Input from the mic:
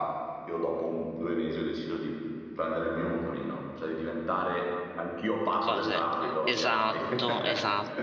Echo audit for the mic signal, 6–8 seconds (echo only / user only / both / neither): both